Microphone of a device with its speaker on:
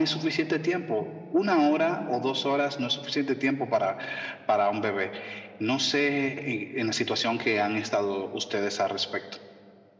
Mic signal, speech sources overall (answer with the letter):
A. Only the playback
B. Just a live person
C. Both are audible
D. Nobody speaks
A